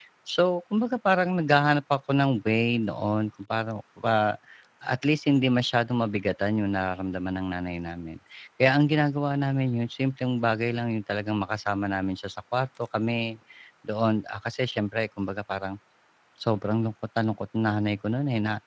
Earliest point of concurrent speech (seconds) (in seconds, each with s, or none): none